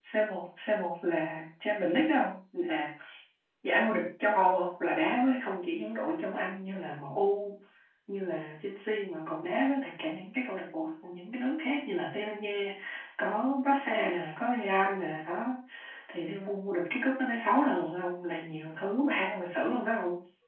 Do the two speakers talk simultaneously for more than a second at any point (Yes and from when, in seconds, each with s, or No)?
No